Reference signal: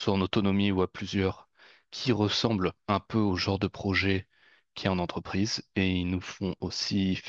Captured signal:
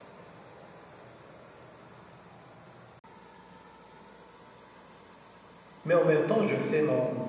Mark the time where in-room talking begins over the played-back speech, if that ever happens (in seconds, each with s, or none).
5.8 s